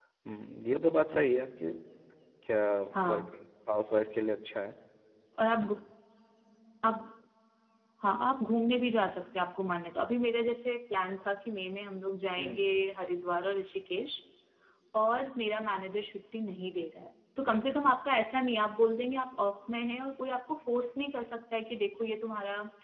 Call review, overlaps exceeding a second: none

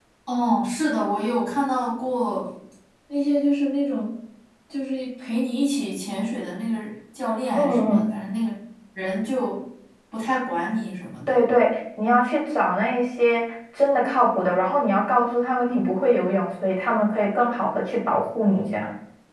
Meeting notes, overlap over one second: none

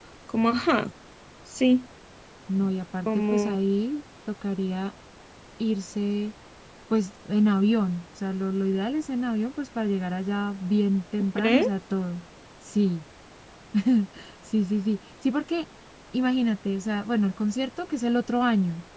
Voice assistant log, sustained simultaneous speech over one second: none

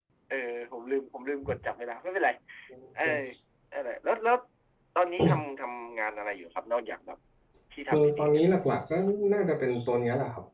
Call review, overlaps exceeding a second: none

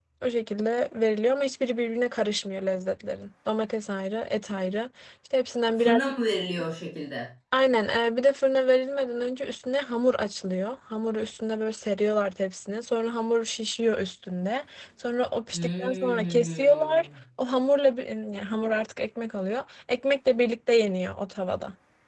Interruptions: present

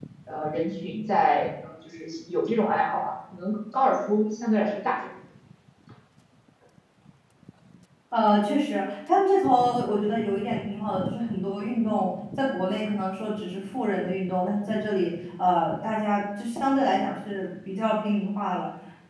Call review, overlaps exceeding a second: none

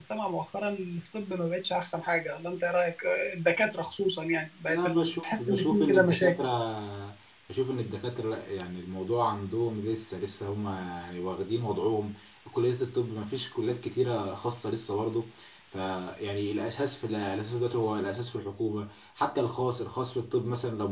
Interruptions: present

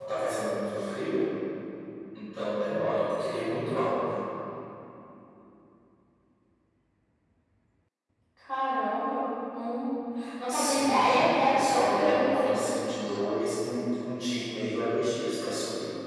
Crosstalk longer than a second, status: present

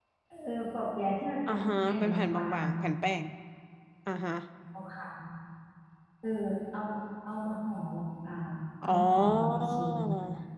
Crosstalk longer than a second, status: present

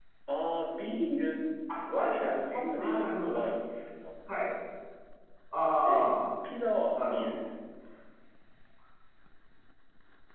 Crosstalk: present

